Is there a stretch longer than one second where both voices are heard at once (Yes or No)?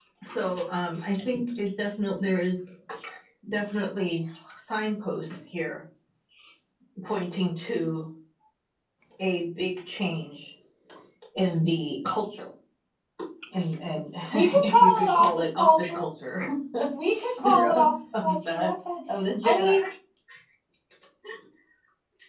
Yes